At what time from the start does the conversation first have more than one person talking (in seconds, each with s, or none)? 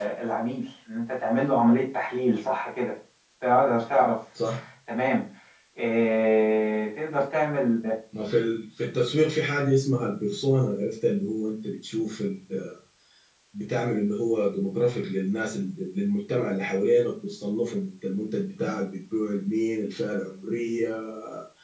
none